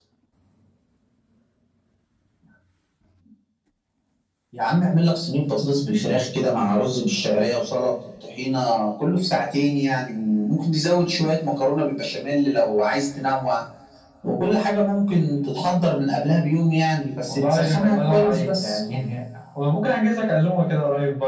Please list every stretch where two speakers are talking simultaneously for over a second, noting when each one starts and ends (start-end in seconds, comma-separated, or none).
17.3-18.8